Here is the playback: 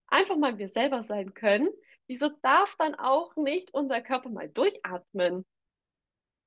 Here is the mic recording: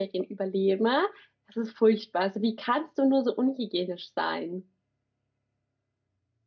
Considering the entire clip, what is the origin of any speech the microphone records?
user only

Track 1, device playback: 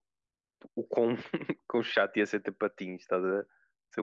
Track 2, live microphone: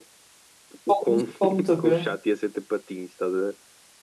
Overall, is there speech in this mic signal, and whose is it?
both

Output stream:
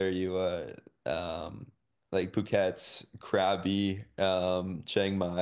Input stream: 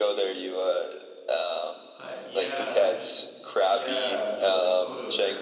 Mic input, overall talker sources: both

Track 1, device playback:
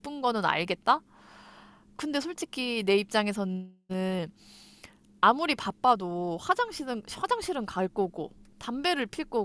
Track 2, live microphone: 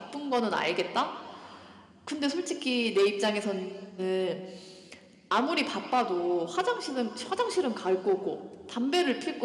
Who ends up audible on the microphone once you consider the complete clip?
echo only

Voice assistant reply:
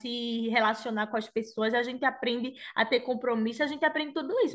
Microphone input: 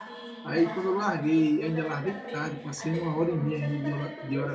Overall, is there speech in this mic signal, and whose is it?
both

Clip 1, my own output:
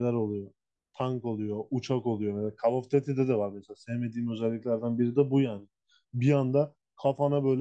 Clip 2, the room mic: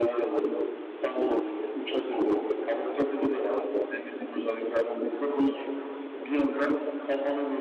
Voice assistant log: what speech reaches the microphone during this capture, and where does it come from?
echo only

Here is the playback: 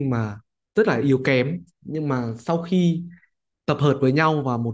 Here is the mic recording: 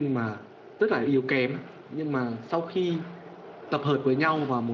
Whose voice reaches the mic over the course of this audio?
echo only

